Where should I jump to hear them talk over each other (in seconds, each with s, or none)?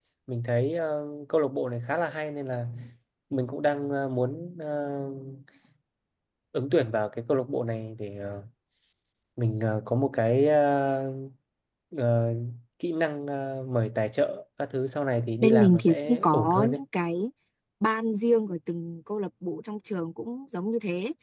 15.4 s